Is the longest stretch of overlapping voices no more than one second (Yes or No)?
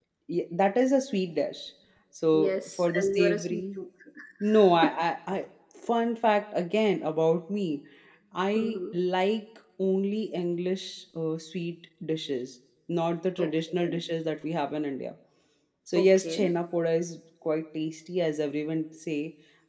No